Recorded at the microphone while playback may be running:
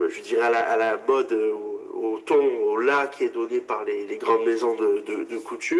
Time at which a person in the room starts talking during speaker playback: none

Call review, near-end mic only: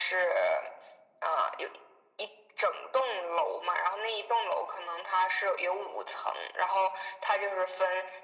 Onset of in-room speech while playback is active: none

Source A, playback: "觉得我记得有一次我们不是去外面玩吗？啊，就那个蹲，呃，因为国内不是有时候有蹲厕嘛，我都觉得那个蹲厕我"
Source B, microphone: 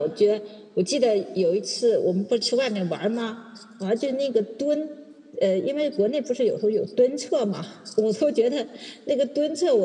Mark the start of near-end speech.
none

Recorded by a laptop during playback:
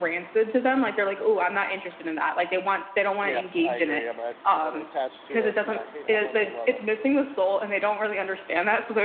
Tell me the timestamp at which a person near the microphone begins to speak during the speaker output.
3.2 s

